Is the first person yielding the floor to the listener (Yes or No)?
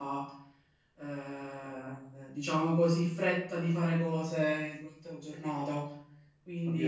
Yes